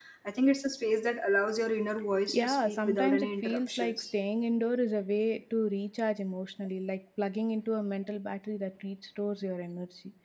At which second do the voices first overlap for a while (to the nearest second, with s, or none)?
2 s